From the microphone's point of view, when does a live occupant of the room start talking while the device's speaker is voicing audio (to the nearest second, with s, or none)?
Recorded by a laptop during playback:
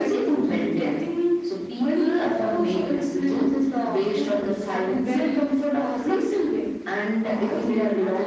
none